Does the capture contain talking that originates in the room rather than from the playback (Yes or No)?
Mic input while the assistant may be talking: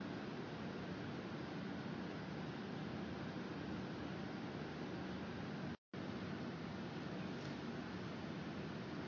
No